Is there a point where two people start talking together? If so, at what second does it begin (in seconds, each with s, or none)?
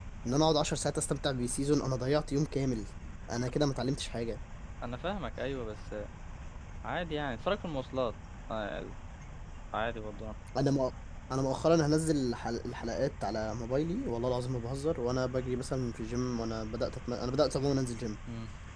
none